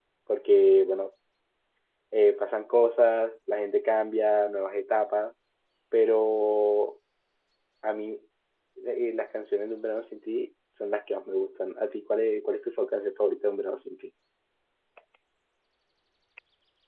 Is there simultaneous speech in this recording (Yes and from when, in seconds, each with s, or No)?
No